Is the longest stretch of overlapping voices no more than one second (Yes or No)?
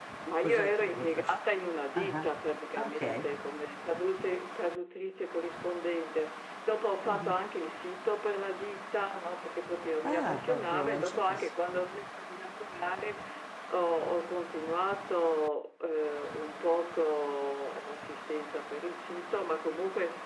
No